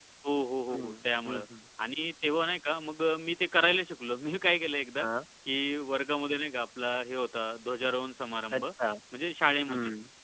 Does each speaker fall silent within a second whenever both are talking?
Yes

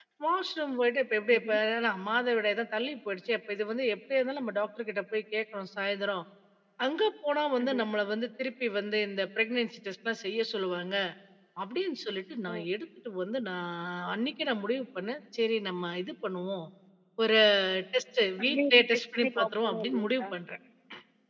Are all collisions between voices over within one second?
No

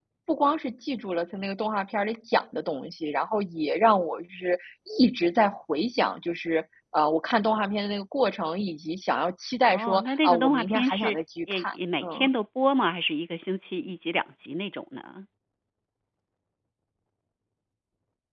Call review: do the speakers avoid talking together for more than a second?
No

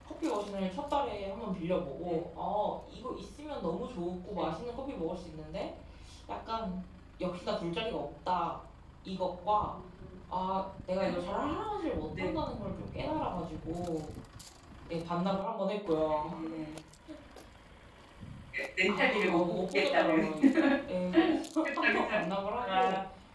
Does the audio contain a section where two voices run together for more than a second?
Yes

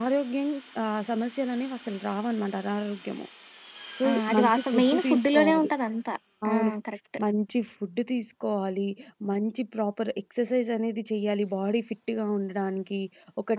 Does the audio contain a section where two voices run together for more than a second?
Yes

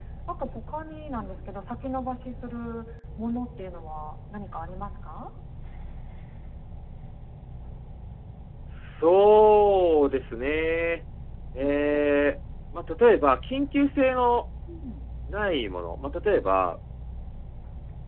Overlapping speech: No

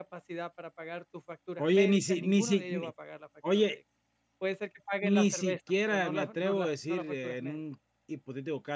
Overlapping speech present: Yes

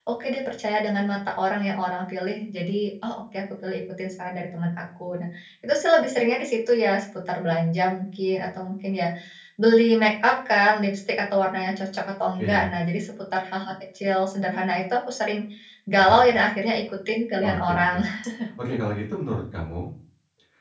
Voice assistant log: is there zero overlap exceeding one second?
Yes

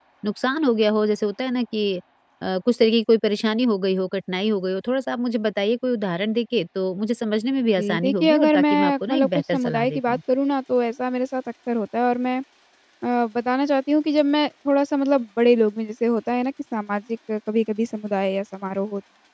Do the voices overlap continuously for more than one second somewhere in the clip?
Yes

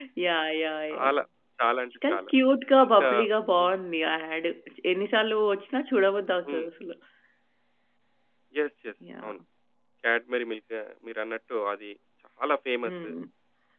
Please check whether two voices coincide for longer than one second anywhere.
No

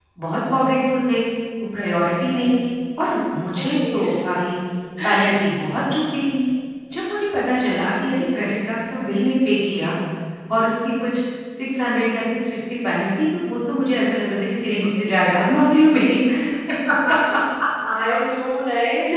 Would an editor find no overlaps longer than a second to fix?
Yes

